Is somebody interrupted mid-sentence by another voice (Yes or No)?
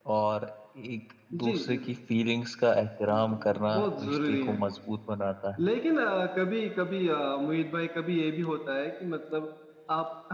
Yes